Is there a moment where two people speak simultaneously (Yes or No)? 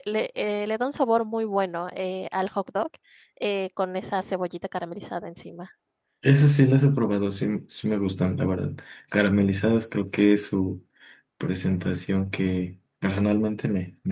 No